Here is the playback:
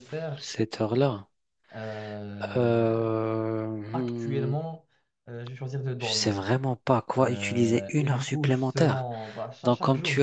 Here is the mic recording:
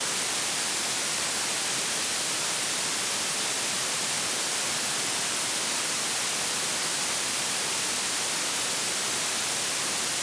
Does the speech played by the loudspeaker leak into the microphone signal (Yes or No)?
No